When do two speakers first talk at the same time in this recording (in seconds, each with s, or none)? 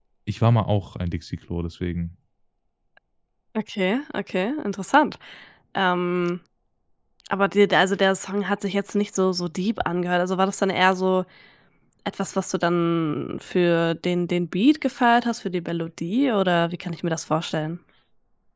none